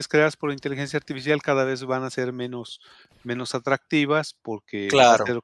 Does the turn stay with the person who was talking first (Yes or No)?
Yes